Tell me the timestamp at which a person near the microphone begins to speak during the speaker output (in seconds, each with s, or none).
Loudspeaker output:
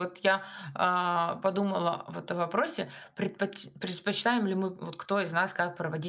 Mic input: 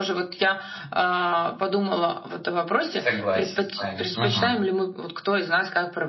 2.9 s